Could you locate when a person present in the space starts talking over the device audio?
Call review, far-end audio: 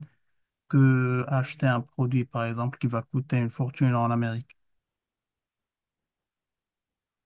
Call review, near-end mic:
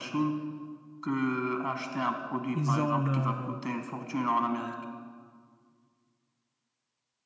2.5 s

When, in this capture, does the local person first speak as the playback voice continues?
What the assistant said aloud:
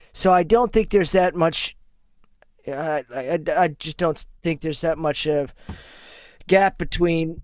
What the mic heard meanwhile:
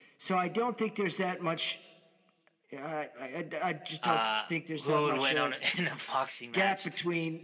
4.0 s

